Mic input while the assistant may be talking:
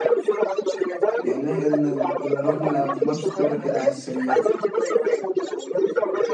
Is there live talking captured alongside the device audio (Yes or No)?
Yes